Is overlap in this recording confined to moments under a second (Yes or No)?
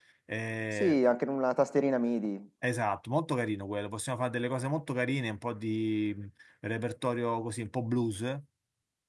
Yes